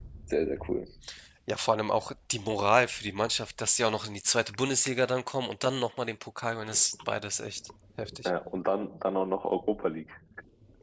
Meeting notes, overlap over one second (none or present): none